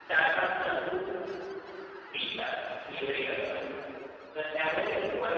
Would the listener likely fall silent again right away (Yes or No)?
Yes